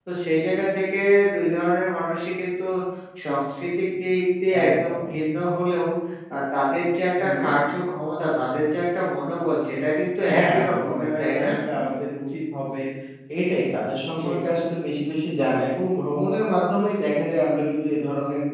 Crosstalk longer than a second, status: present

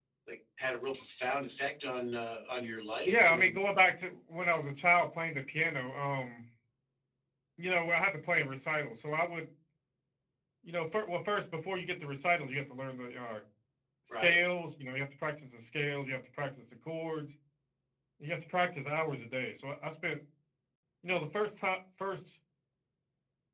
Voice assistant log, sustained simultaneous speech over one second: none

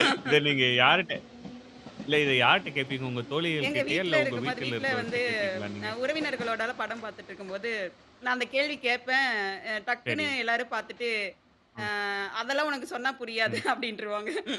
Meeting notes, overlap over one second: present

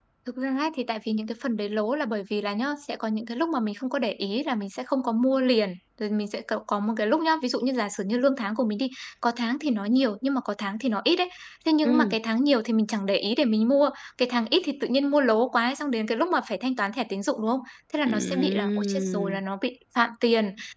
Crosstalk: present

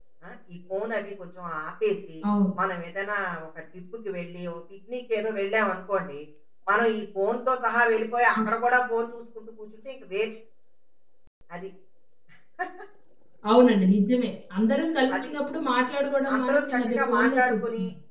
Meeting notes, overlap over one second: present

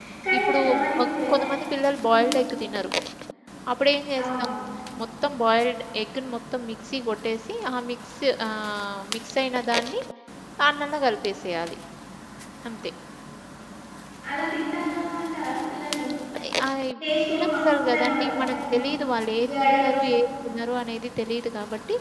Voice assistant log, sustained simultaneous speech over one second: present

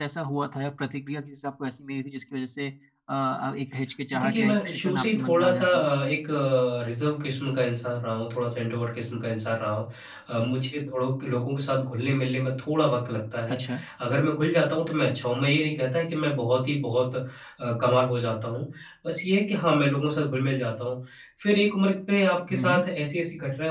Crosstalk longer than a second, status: present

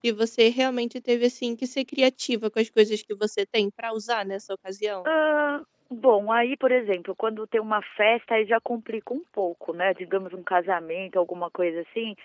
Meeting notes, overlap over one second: none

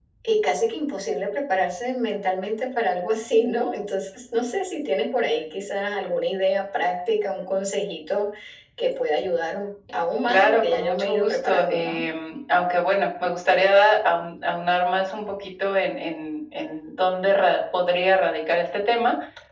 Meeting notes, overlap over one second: present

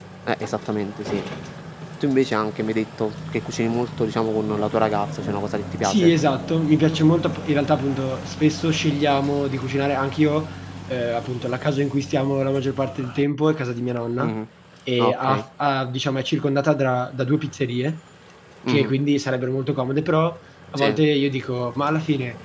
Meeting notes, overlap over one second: none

